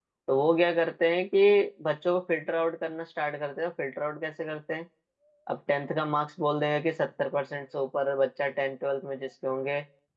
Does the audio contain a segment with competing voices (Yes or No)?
No